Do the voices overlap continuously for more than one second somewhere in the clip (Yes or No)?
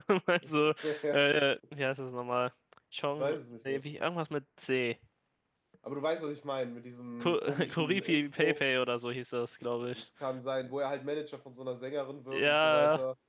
Yes